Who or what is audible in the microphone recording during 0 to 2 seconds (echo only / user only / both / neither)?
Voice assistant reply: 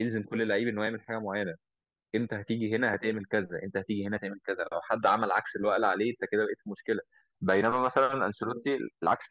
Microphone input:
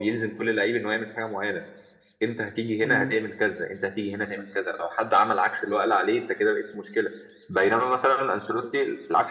echo only